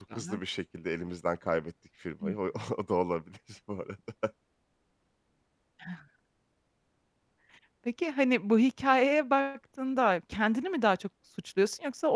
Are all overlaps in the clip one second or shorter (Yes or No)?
Yes